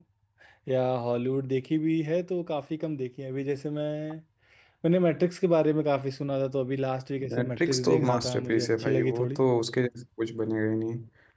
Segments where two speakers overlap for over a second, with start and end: 7.3-9.4

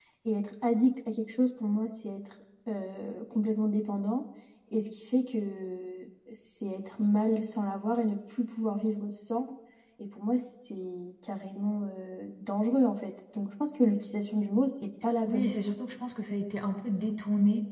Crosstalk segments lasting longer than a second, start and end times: none

